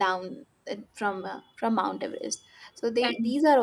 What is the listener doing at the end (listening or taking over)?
listening